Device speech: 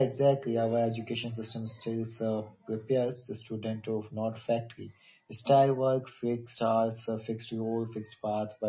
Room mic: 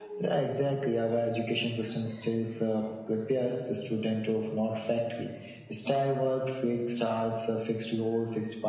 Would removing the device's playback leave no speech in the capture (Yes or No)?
Yes